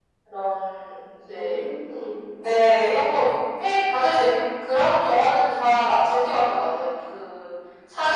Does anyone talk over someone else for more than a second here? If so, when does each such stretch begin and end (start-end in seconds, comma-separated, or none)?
none